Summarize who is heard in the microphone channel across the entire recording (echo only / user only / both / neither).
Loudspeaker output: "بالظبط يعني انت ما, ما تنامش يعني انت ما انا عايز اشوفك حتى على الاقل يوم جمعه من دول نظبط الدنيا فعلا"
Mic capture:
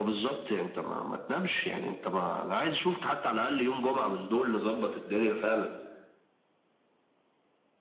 echo only